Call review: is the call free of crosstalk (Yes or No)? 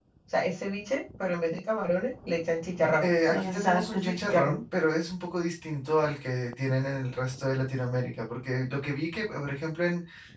No